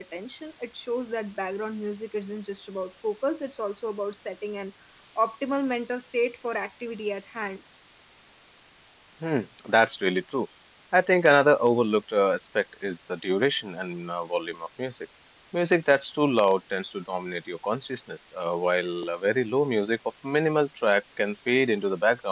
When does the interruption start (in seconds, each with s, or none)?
none